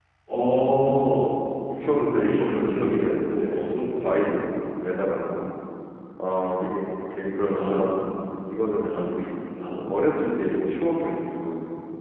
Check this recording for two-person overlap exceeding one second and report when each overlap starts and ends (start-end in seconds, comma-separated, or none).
1.8-3.5